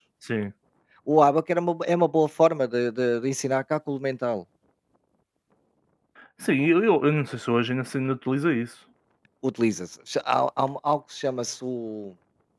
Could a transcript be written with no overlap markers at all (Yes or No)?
Yes